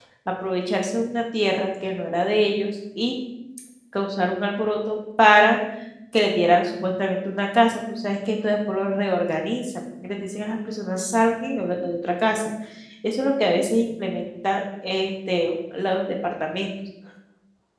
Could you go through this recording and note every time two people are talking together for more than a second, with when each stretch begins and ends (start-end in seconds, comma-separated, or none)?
none